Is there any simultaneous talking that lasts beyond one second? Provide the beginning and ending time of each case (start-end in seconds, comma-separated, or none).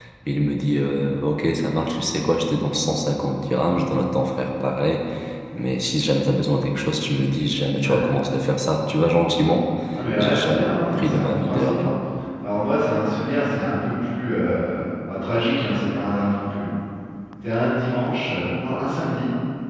10.2-11.9